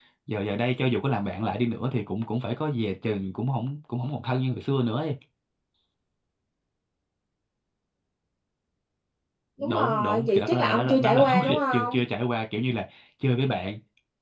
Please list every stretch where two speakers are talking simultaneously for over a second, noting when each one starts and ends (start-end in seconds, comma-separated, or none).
9.6-12.0